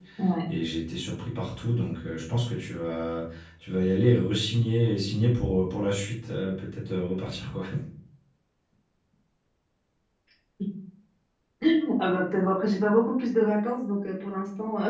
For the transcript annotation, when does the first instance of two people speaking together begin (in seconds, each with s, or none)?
none